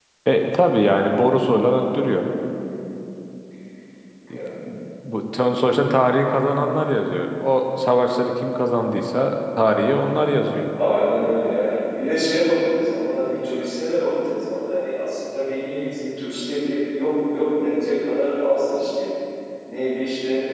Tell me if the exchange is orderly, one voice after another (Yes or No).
Yes